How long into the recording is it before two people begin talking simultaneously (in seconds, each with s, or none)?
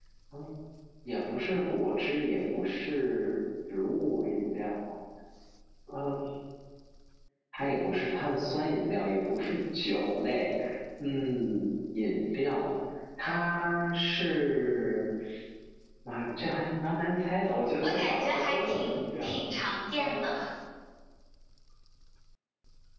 17.8 s